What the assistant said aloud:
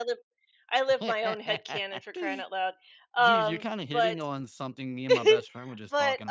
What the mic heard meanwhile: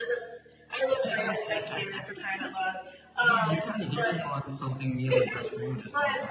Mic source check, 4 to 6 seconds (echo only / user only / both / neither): echo only